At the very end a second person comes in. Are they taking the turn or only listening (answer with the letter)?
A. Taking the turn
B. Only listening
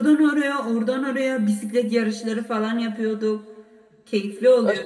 A